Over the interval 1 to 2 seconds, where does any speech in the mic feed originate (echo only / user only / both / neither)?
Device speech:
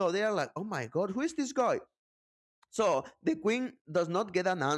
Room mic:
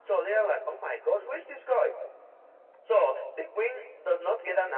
echo only